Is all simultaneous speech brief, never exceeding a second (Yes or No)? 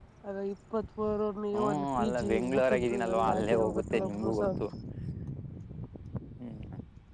No